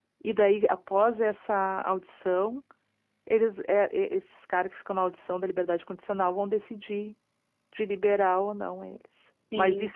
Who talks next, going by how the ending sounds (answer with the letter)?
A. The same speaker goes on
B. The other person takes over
A